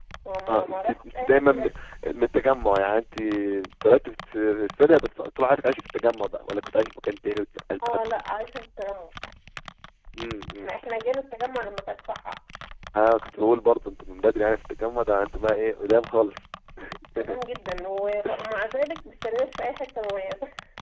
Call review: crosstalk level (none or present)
present